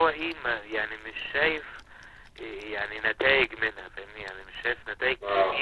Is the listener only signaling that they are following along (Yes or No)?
Yes